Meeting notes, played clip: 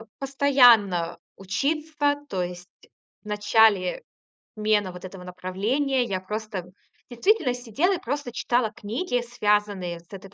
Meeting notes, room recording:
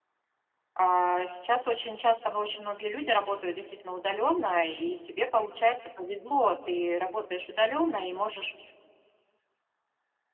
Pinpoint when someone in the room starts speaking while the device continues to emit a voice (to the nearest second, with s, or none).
1 s